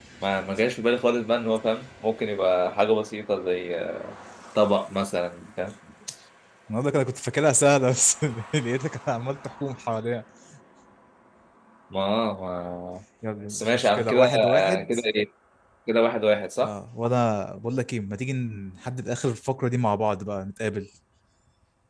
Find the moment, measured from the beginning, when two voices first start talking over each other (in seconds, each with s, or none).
13.5 s